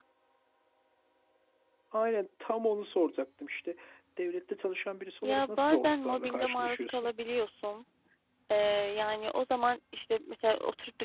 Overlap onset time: 5.2 s

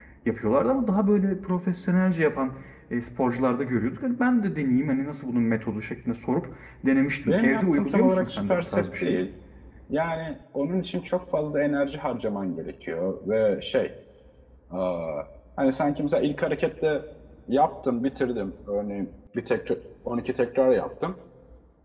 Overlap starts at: 7.2 s

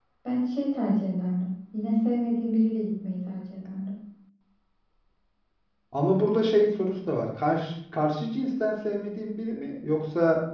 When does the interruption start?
none

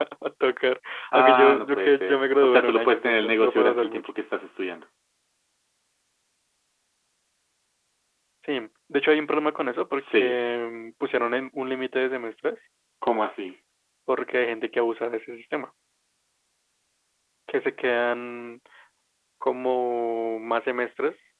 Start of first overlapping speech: 1.1 s

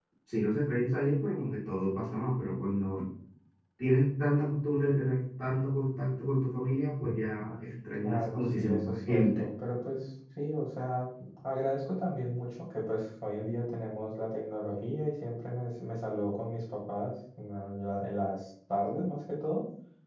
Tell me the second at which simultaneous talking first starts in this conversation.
8.0 s

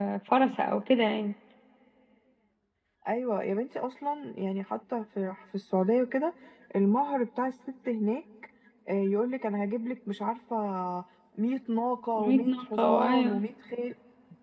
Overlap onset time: 12.2 s

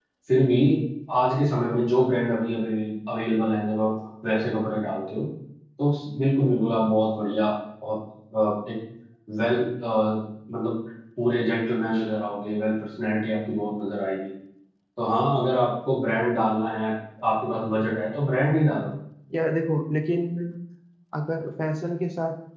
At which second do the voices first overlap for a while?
none

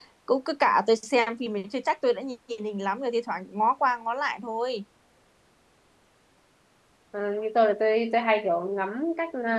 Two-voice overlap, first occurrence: none

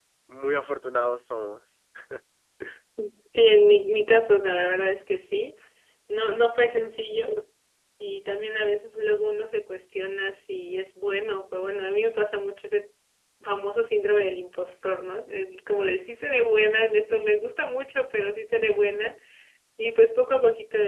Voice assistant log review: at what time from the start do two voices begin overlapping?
none

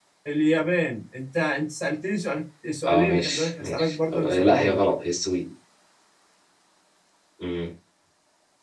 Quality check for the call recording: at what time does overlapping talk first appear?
2.8 s

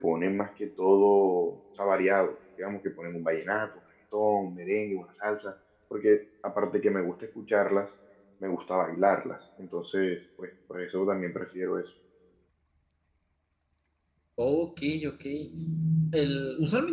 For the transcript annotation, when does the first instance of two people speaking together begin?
none

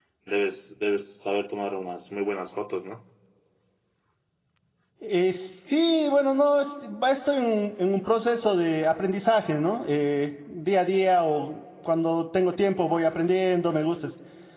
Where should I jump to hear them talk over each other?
none

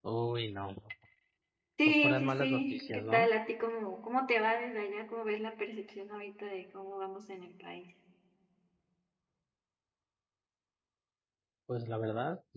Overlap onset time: 1.9 s

